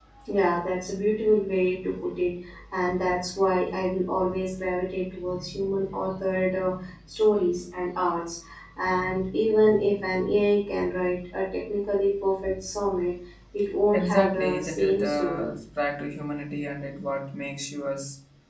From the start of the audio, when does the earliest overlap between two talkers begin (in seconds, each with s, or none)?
13.9 s